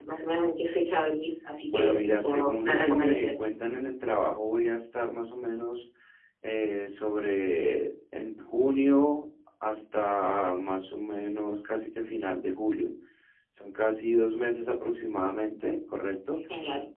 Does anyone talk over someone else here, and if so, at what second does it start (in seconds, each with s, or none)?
1.7 s